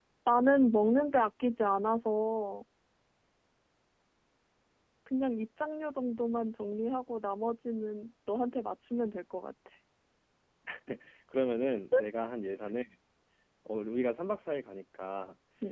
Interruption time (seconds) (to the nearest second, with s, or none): none